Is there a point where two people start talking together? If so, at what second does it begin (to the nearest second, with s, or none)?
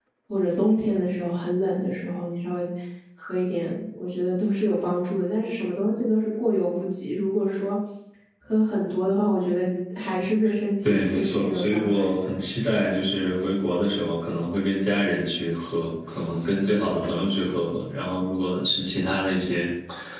11 s